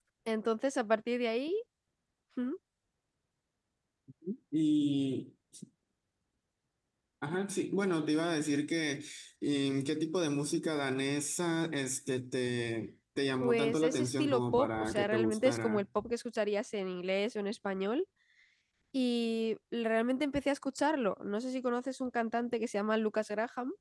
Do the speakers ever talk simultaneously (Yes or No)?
Yes